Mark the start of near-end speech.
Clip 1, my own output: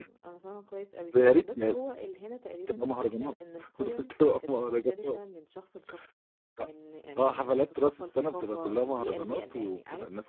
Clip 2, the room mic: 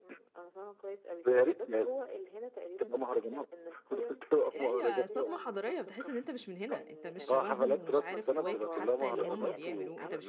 4.4 s

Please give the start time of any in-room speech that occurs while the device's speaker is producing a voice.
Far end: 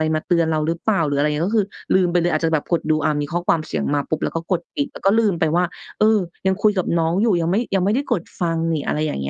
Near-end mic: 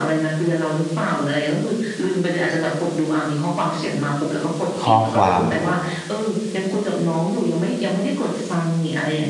4.8 s

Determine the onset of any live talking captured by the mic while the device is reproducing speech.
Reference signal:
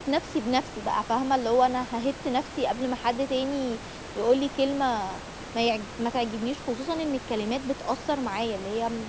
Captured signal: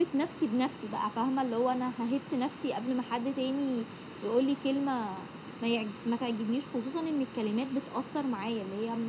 none

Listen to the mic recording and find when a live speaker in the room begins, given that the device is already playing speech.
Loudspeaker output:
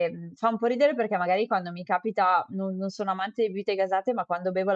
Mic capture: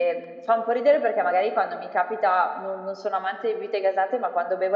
none

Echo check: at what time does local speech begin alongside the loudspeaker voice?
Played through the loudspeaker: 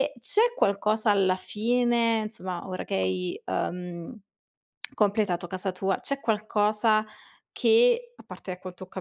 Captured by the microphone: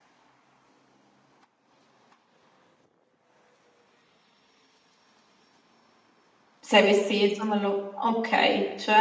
6.6 s

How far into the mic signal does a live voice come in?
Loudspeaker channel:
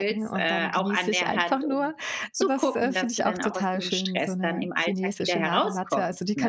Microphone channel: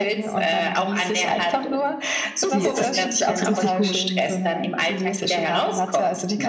2.5 s

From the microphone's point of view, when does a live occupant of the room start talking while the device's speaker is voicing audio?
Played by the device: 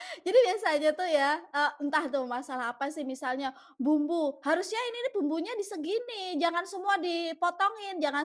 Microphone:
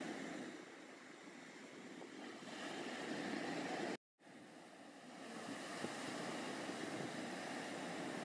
none

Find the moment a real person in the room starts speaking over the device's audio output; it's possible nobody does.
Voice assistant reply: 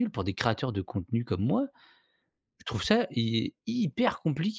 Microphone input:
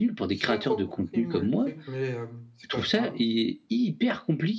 0.3 s

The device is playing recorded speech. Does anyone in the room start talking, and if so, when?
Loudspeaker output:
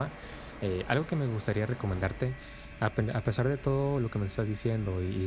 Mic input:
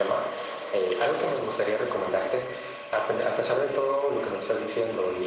none

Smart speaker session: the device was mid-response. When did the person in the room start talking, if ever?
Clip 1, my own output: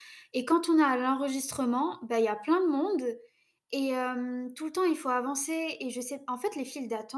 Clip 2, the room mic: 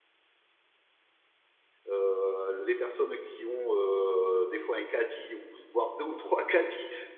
1.9 s

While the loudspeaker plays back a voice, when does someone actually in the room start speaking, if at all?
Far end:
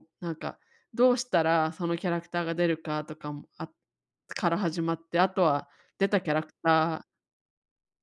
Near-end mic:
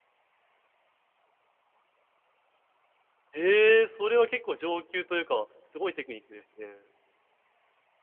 3.3 s

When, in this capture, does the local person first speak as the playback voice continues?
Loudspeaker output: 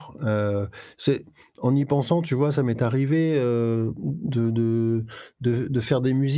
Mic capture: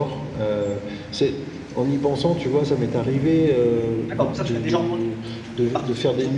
4.1 s

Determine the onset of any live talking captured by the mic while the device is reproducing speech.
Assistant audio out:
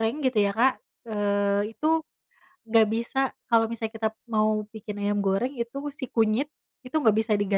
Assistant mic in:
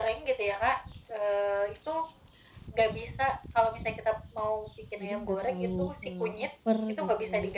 5.0 s

